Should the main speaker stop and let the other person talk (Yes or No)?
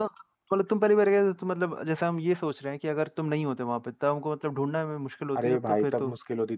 Yes